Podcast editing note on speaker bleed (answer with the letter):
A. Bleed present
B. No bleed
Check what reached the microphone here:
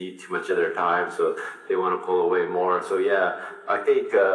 A